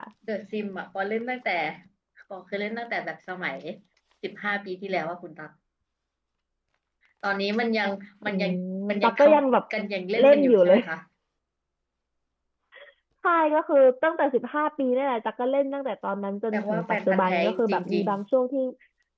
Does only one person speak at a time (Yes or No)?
No